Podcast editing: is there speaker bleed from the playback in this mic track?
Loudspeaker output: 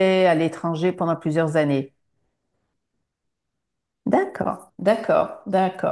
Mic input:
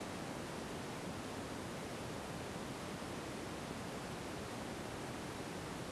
No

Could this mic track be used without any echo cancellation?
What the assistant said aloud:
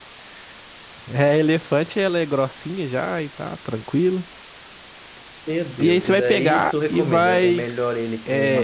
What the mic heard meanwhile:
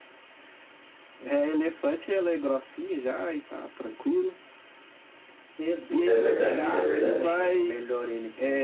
No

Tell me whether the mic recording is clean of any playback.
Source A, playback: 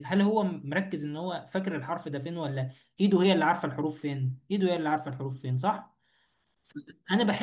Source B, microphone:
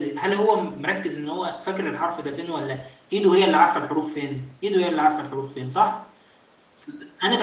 No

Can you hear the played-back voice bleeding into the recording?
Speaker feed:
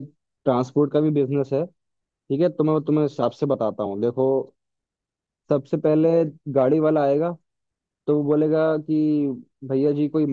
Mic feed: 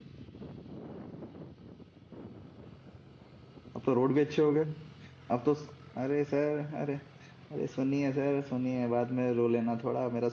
No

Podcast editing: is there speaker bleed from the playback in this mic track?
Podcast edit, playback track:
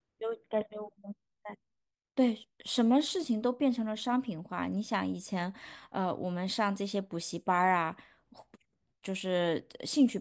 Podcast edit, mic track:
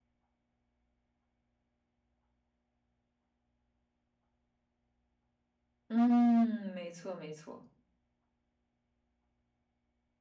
No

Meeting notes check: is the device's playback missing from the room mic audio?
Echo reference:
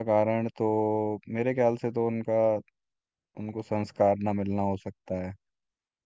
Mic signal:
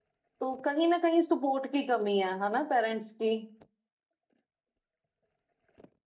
Yes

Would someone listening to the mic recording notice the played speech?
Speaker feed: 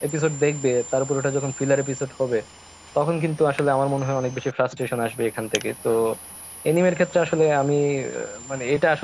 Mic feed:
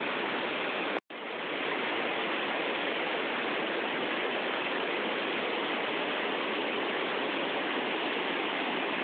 No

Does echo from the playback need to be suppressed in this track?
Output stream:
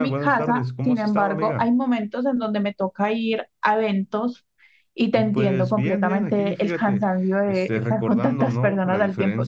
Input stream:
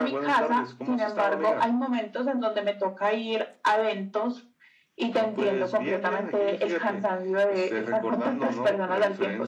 Yes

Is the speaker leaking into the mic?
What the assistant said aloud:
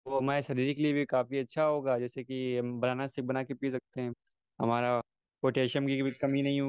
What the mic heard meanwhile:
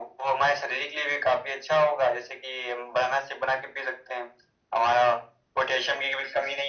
Yes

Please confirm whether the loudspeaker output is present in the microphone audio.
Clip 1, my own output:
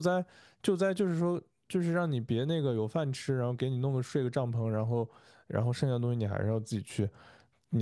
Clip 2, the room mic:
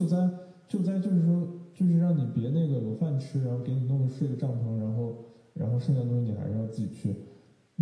Yes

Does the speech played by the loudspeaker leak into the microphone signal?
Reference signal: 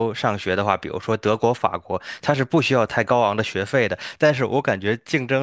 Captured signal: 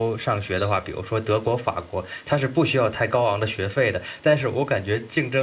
Yes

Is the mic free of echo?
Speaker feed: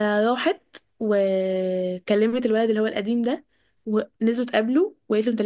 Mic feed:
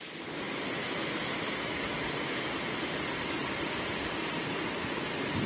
Yes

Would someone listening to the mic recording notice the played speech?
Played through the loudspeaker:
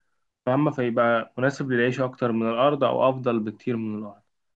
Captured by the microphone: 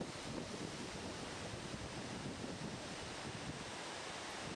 No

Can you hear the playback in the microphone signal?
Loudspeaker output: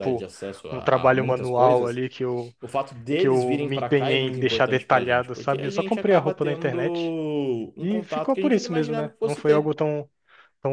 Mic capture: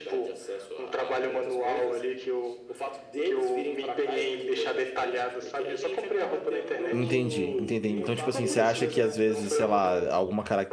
Yes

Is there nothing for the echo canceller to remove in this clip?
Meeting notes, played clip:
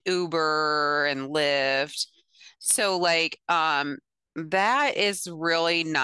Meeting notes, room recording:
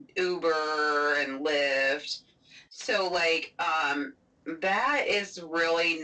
No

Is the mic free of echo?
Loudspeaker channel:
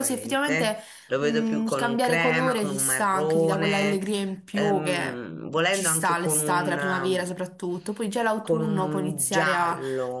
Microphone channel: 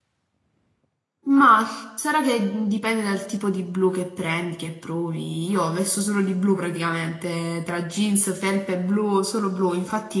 Yes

